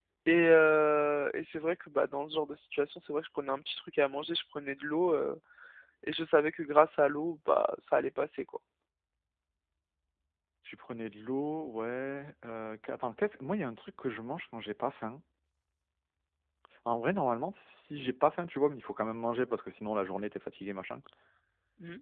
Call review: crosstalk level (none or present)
none